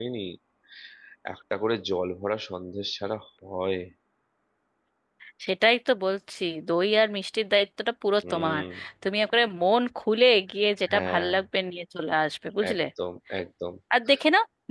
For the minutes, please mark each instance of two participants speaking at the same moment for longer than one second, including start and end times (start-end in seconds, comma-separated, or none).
none